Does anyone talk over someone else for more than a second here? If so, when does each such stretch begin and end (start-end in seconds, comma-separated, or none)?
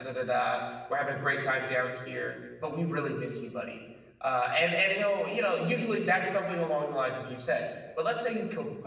none